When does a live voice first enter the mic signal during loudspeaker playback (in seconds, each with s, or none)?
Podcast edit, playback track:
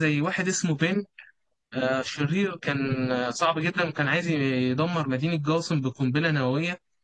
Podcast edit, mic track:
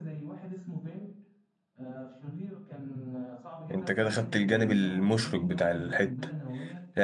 3.7 s